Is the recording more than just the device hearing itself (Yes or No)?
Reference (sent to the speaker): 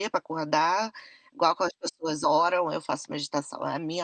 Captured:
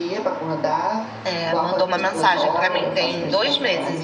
Yes